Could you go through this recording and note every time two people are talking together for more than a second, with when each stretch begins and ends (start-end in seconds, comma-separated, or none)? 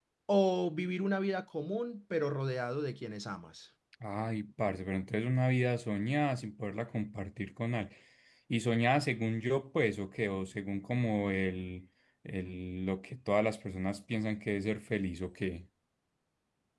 none